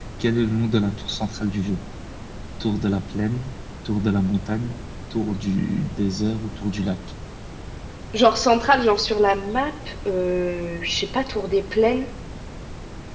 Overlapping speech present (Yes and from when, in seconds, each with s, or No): No